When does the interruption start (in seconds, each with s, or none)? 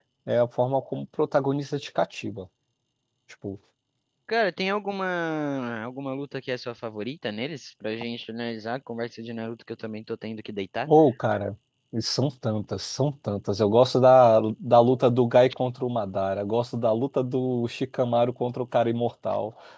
none